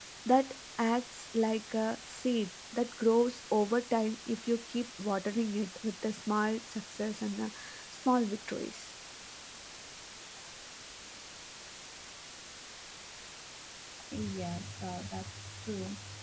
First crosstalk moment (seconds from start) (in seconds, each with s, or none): none